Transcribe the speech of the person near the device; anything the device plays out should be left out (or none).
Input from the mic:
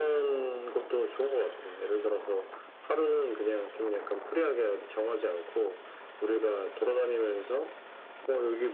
none